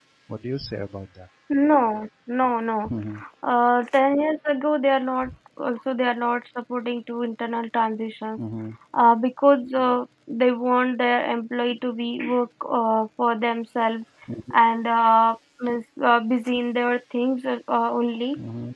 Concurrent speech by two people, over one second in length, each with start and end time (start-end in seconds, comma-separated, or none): none